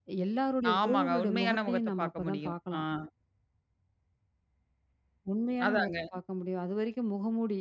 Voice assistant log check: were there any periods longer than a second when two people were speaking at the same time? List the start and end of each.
0.8-2.8

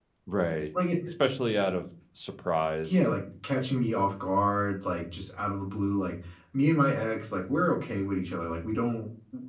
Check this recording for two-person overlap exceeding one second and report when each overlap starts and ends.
none

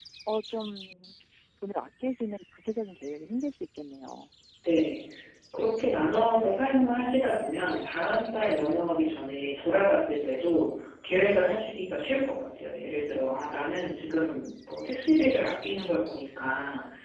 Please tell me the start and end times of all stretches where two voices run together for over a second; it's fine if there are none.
none

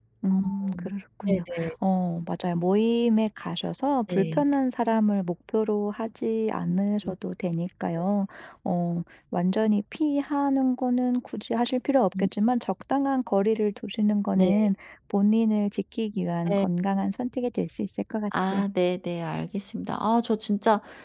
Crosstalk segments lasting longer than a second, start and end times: none

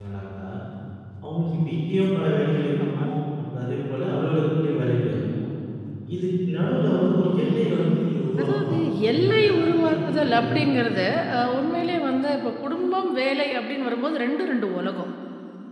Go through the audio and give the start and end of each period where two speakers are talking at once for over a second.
8.4-10.6

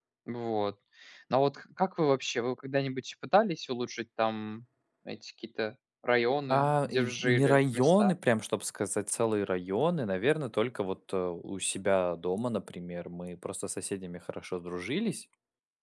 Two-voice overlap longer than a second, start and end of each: 6.5-8.1

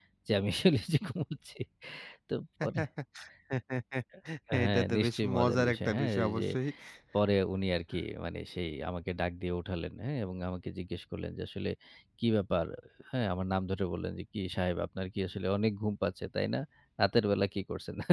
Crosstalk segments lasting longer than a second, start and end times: 4.6-6.5

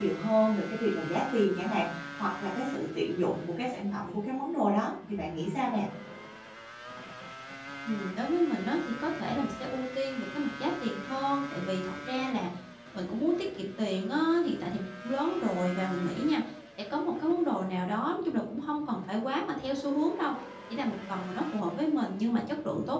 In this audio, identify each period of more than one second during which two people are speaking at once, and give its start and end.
none

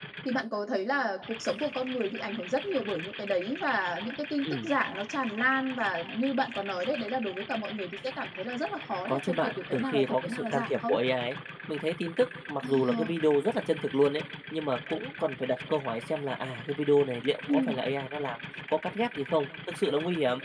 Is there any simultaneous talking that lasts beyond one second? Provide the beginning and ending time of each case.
9.1-11.0

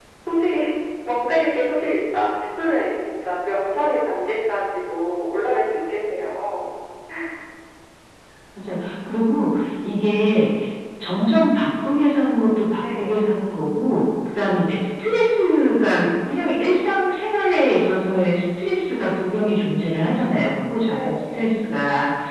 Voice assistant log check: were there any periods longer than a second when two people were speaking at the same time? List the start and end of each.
none

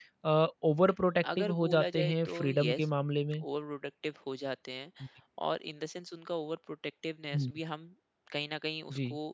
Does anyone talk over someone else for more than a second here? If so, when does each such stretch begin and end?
1.4-2.9

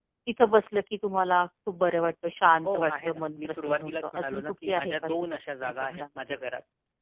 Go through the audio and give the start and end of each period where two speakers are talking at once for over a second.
2.6-6.0

